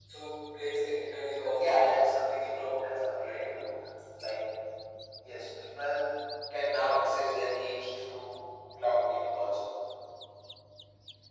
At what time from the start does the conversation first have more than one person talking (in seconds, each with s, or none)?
1.6 s